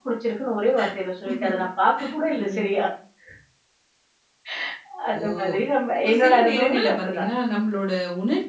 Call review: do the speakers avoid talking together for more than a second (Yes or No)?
No